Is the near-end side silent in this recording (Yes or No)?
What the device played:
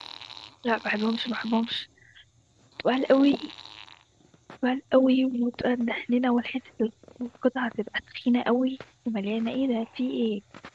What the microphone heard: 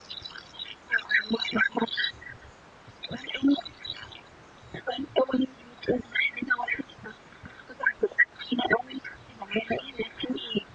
Yes